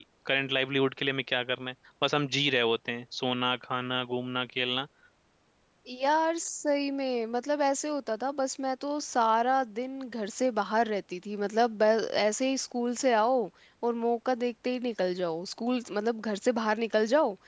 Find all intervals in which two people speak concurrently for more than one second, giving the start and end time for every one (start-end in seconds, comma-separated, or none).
none